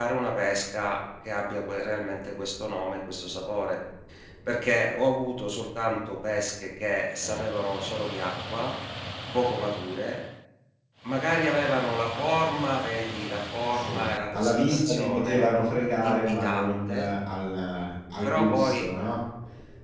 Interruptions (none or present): present